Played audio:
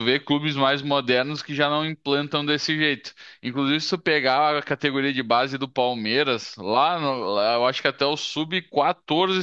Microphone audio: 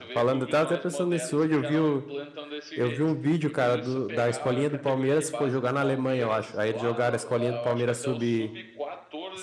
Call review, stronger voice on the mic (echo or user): user